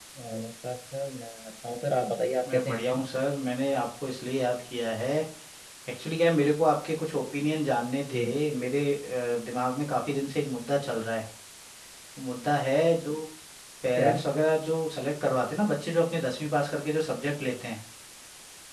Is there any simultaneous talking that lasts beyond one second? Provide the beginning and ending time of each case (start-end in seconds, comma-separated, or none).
none